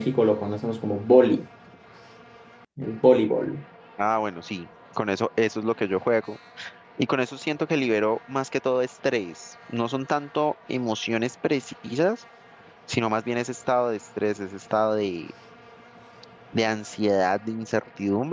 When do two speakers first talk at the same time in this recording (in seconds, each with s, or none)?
none